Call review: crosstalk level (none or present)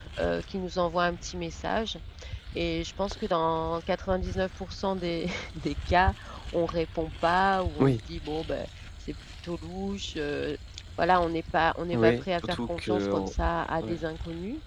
present